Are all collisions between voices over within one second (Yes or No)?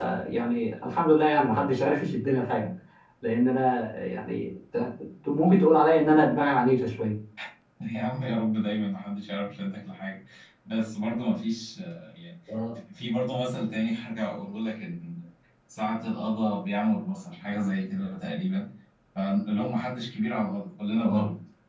Yes